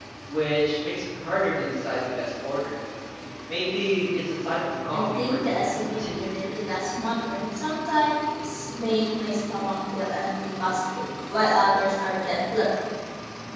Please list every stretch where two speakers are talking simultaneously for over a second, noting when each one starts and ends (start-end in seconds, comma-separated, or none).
4.9-6.2